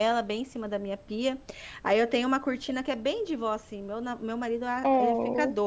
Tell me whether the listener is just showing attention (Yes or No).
Yes